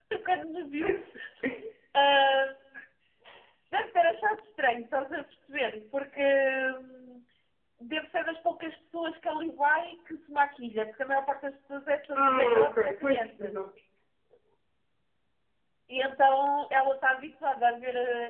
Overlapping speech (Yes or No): Yes